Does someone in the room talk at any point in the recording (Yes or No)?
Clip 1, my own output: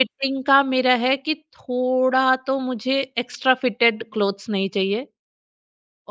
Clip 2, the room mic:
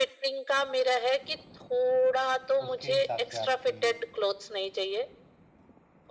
Yes